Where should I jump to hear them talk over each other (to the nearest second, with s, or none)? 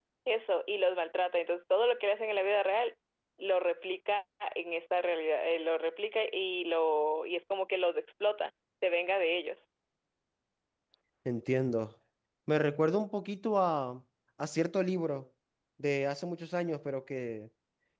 none